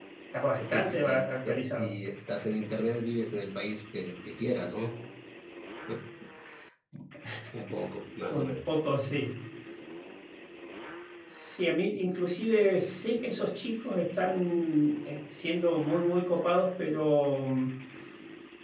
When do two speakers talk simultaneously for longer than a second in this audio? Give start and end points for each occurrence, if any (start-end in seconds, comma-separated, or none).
0.6-1.9